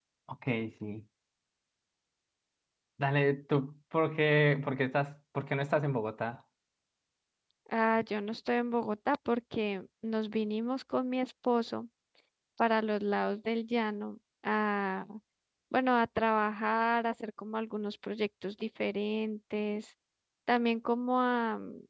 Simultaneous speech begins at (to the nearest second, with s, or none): none